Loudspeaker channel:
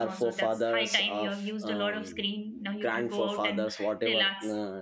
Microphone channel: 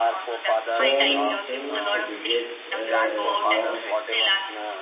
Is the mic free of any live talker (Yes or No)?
No